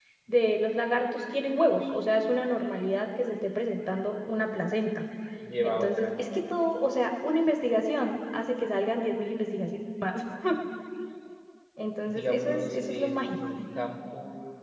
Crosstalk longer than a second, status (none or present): present